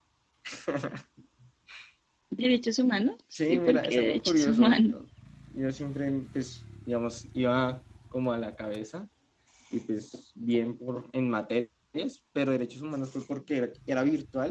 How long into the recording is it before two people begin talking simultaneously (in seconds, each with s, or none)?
3.3 s